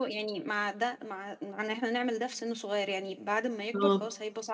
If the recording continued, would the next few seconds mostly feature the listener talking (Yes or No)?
No